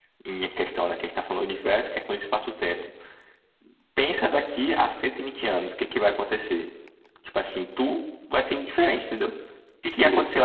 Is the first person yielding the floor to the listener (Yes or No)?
No